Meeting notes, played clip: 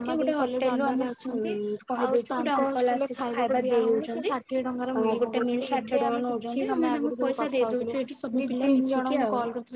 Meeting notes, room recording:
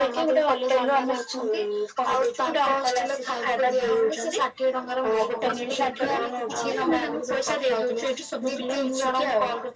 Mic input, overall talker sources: both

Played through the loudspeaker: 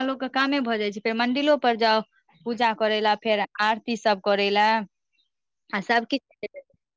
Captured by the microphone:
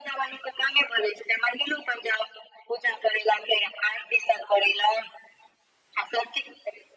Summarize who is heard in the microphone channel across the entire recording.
echo only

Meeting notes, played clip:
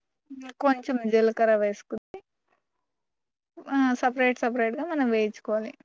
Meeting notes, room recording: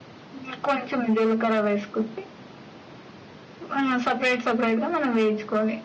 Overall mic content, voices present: echo only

